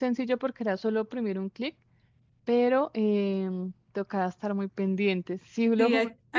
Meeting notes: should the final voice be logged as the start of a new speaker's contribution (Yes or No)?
Yes